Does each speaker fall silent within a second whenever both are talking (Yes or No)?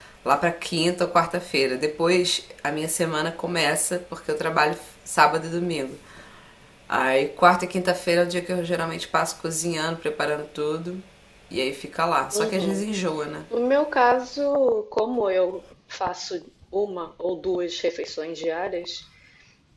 Yes